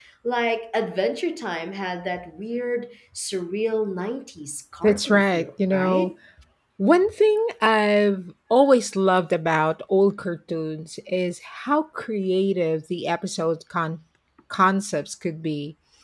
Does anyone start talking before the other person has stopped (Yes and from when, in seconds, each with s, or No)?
Yes, from 4.8 s